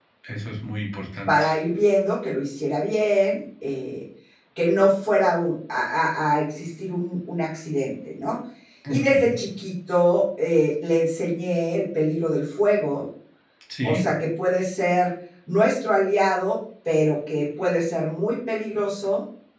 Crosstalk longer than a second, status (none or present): none